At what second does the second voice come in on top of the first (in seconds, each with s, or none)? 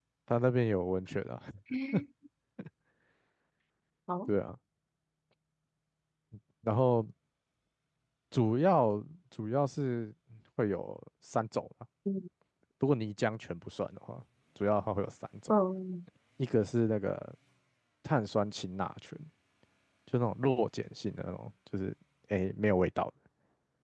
none